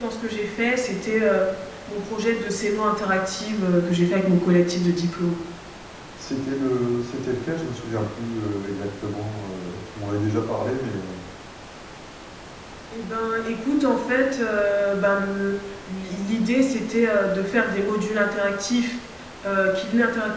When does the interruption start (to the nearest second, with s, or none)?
none